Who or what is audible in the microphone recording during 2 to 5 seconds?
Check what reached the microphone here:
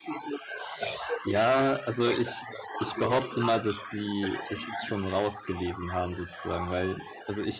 both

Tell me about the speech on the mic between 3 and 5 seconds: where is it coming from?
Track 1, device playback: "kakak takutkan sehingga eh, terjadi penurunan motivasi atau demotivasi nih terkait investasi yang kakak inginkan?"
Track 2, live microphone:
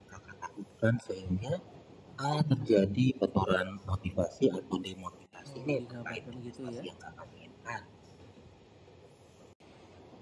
echo only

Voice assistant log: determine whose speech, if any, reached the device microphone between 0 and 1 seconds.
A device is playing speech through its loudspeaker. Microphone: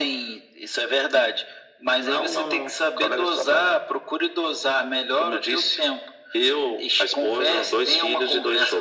echo only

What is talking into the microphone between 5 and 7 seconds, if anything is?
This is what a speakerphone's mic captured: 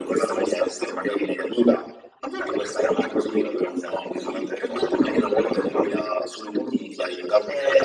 echo only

